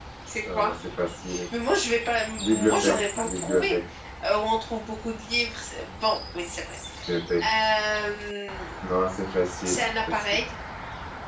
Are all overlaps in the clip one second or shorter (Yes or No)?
No